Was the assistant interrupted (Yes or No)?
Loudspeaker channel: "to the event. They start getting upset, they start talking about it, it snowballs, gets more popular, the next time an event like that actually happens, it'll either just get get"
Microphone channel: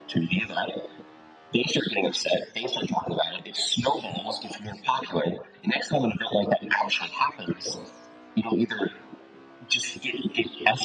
No